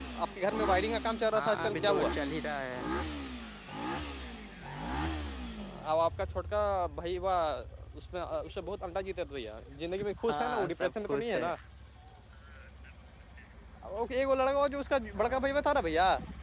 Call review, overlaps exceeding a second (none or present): present